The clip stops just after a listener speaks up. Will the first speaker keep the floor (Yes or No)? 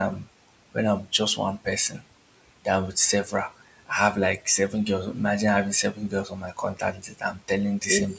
Yes